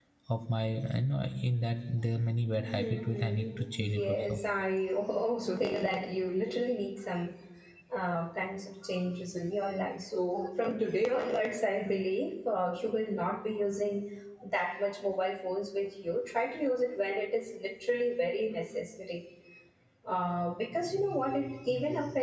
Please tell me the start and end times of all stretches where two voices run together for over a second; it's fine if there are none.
2.7-4.4

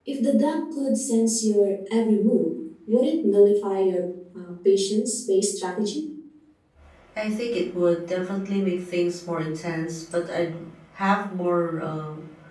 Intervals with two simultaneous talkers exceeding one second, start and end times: none

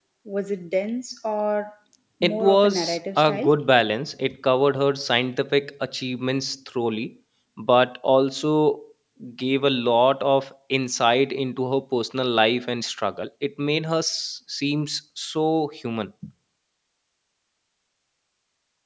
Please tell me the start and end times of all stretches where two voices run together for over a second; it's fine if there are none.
2.2-3.5

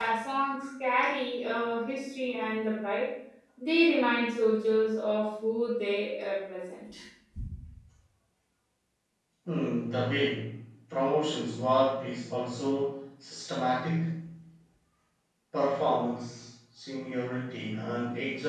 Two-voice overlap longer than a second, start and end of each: none

